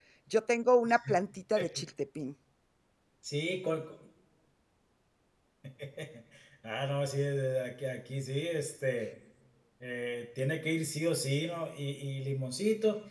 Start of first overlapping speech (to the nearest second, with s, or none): none